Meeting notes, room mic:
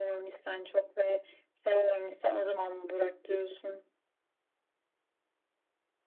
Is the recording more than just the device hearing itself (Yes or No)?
No